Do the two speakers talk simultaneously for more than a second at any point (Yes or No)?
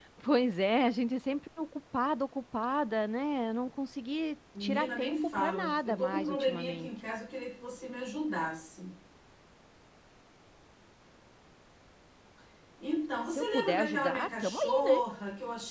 Yes